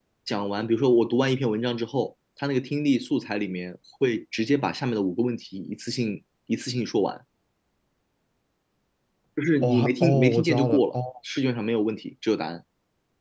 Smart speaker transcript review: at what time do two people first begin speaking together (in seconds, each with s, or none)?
9.6 s